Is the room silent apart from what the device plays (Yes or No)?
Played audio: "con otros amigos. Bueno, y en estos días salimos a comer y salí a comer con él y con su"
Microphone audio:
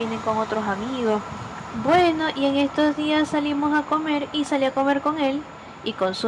Yes